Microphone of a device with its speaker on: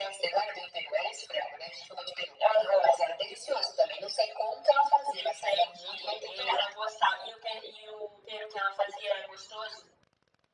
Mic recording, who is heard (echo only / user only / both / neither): echo only